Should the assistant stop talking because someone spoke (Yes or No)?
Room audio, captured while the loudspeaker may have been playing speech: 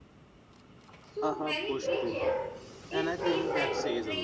Yes